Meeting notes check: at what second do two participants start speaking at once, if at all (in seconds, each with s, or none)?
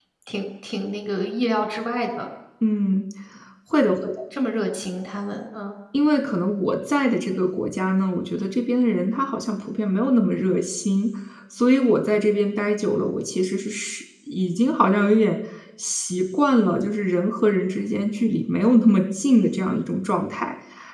none